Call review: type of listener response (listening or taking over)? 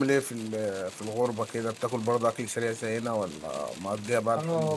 taking over